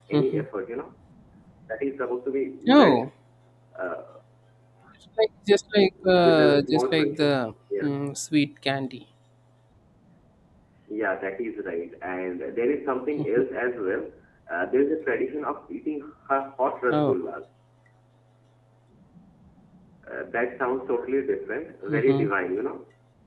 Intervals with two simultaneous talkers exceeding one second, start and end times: 6.0-7.3

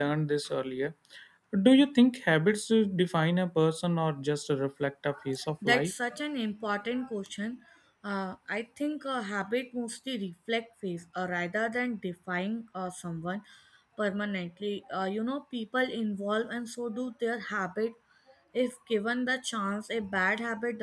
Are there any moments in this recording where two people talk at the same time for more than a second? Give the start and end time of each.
none

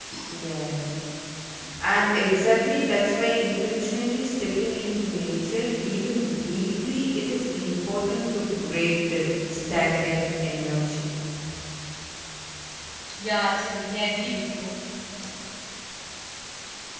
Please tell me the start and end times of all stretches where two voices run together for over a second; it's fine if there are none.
none

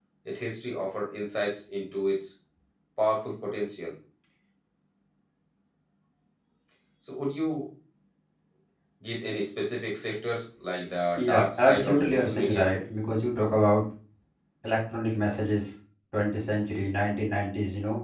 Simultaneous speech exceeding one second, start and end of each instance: 11.2-12.7

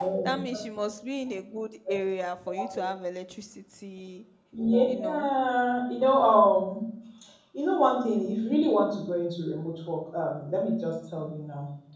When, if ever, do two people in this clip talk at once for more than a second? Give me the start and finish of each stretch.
none

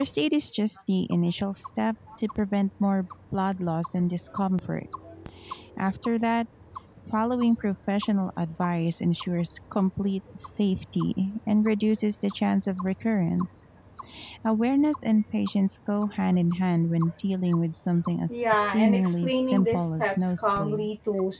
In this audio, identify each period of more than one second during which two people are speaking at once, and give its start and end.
18.5-20.9

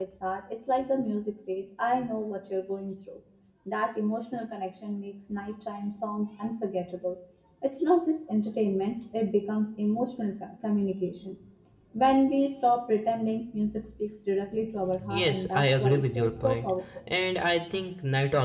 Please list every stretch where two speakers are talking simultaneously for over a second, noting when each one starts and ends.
15.1-16.7

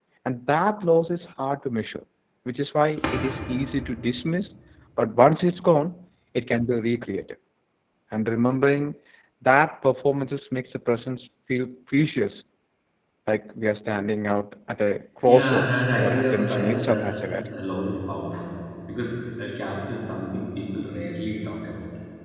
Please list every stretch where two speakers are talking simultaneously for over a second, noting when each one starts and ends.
15.2-17.4

